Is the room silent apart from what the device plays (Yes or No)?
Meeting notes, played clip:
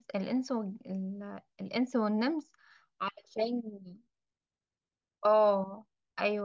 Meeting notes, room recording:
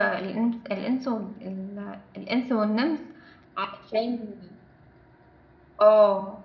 Yes